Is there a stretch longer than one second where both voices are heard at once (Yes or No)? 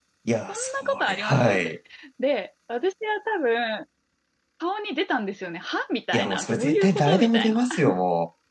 Yes